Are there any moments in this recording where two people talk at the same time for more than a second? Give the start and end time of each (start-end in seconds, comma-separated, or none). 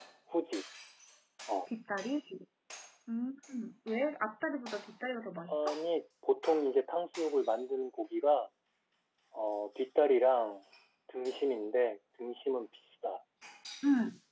none